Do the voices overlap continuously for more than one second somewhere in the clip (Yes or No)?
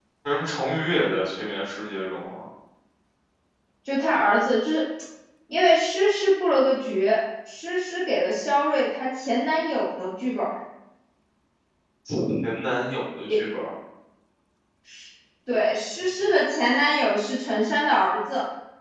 No